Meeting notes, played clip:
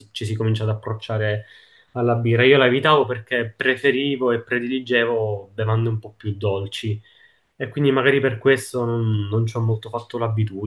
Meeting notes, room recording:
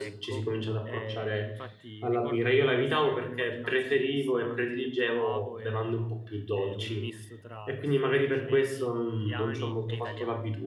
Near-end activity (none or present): present